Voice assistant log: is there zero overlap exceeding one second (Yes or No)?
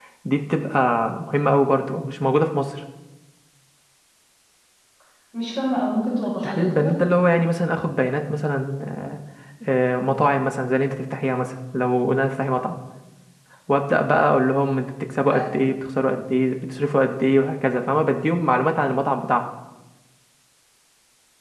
Yes